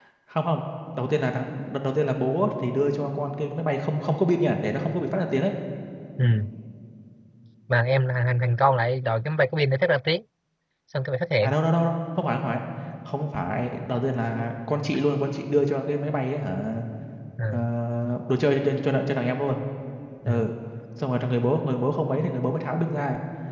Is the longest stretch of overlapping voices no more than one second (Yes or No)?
Yes